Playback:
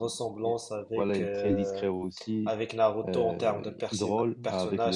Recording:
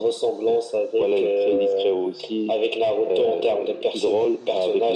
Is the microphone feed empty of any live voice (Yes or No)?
Yes